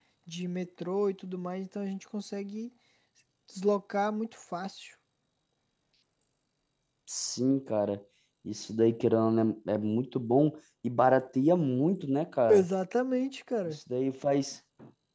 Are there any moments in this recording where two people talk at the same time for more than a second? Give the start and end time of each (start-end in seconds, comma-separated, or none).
none